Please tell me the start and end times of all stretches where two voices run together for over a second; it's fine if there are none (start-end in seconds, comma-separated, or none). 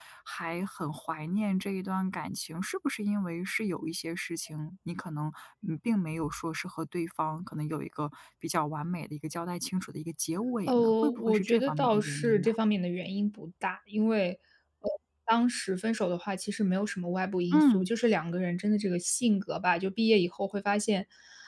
10.7-12.5